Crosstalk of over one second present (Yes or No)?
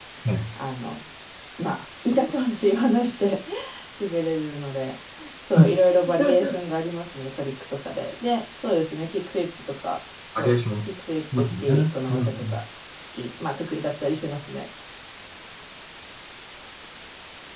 Yes